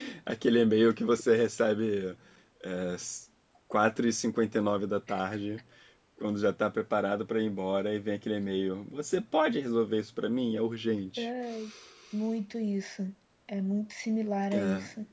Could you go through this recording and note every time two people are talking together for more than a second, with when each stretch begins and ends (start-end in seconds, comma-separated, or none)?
none